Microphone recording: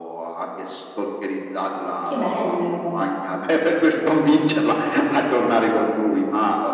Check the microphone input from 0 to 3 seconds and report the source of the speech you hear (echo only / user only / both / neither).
both